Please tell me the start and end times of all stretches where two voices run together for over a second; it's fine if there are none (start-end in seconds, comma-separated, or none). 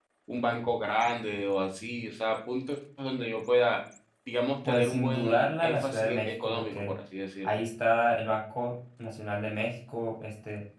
4.7-7.0